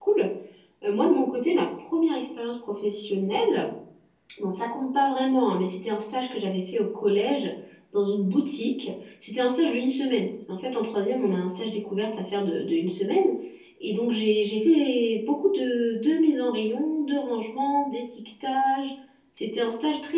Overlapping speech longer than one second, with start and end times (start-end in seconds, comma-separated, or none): none